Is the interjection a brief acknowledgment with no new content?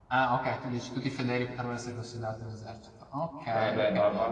No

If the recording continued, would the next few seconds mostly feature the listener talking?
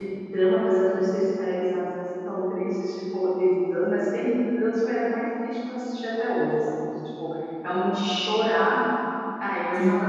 No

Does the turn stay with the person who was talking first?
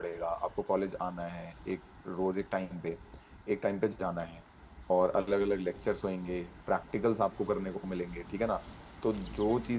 Yes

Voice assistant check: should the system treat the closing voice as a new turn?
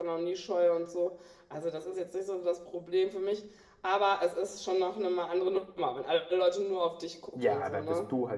Yes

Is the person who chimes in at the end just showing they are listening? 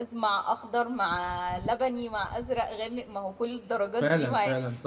No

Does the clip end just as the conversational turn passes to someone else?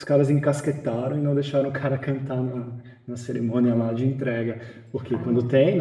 No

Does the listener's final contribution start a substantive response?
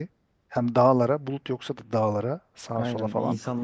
Yes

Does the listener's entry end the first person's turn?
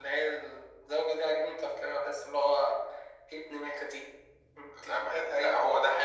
Yes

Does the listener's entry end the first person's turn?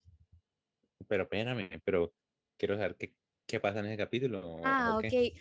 Yes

